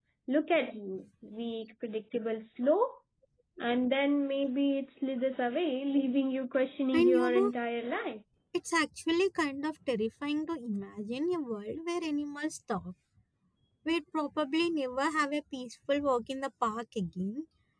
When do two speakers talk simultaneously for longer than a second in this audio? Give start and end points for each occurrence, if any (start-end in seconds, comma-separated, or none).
none